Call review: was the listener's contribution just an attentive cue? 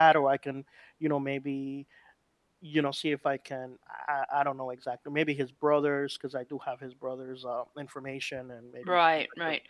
No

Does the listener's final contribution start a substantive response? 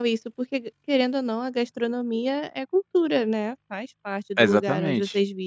Yes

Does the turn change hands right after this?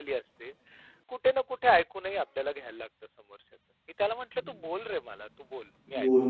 Yes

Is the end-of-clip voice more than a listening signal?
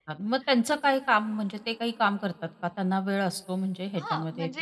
Yes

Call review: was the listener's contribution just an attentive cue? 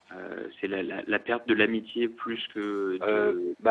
No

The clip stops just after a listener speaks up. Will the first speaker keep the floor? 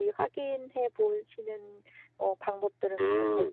No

